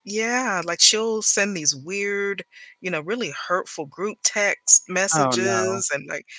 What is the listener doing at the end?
listening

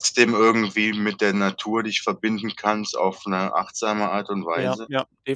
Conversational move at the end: taking over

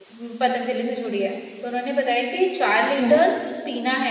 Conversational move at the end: listening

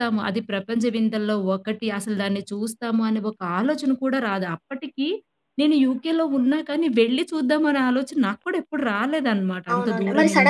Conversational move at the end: taking over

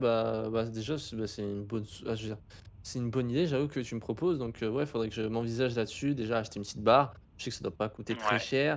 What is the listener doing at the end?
listening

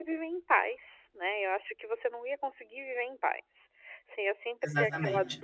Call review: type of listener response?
listening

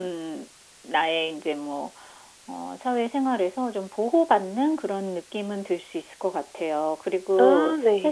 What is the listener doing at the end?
listening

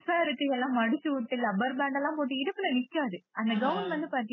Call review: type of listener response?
listening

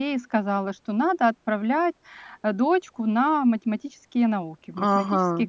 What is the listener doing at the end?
taking over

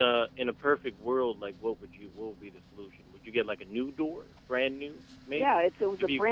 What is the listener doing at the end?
taking over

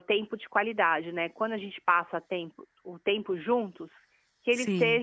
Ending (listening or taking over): listening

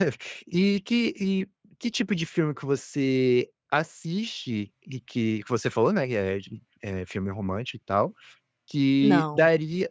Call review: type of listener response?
listening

